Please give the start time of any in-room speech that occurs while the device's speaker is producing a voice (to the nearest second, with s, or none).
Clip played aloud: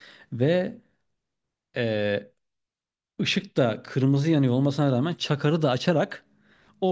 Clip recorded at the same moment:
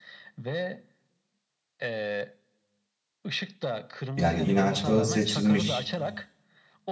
4 s